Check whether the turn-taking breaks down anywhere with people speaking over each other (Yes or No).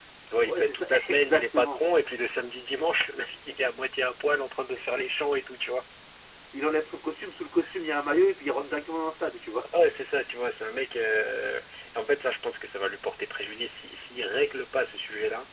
Yes